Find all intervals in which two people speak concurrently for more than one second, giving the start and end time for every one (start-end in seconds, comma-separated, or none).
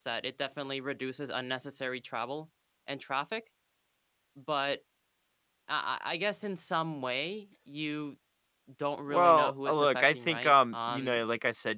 9.1-11.2